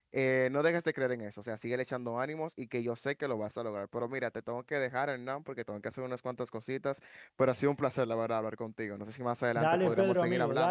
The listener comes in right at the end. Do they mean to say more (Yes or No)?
Yes